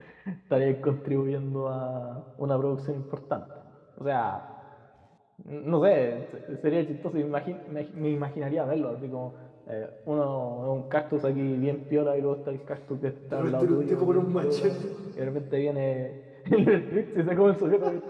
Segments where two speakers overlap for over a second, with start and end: 13.3-14.9

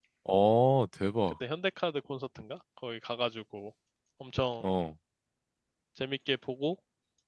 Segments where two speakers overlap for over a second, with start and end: none

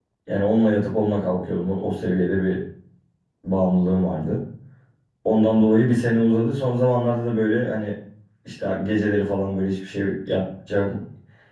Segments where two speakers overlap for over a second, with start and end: none

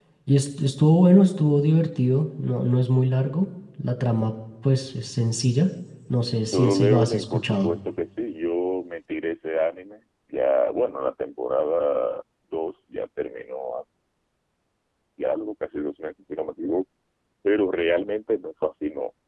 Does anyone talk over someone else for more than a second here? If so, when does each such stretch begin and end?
6.4-7.7

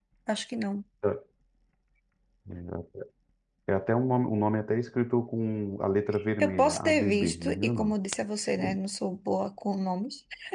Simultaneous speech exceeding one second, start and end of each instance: 6.4-8.0

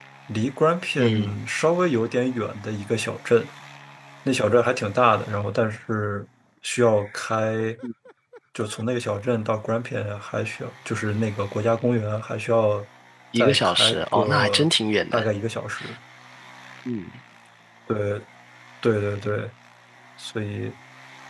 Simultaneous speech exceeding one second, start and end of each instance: 13.3-14.7

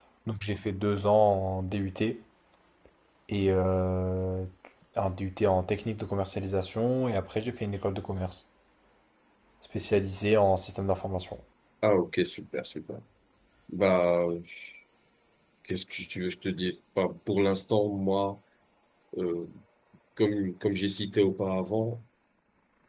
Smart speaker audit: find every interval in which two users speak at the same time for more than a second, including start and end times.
none

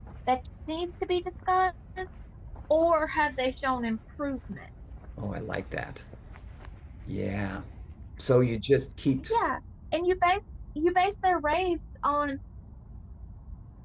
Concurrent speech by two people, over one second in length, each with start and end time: none

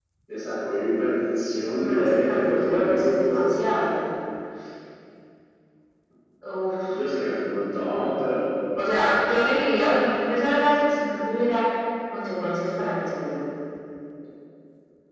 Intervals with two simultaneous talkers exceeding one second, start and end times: 1.7-3.5

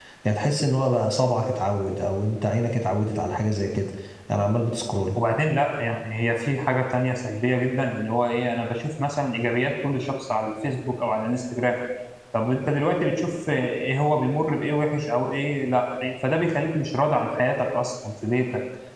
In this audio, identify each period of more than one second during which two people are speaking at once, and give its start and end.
none

